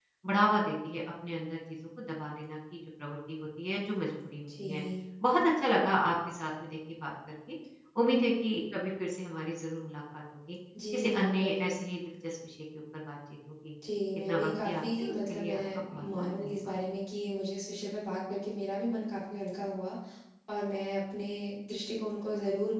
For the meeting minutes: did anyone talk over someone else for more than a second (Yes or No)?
Yes